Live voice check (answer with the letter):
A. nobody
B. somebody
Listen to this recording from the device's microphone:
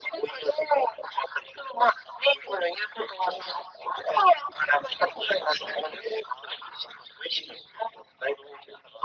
A